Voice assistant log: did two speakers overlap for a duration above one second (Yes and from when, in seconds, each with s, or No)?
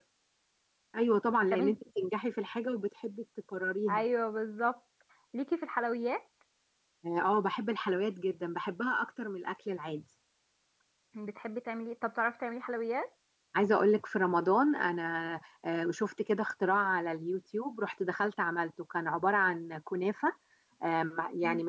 No